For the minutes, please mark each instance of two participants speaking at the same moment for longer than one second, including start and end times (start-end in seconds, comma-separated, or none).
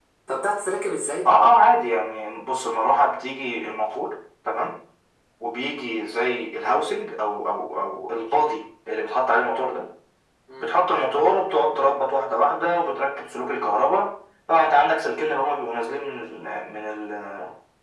none